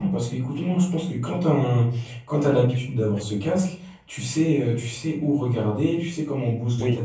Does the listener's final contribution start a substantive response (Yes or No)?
Yes